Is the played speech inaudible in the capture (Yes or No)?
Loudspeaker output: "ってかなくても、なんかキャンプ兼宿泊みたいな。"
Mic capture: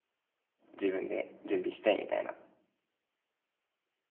Yes